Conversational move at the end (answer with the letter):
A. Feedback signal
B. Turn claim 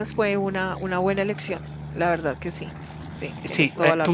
B